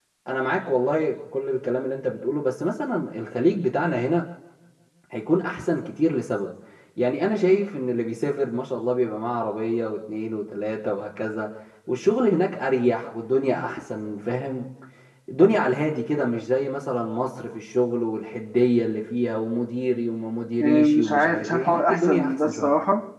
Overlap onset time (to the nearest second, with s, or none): 21 s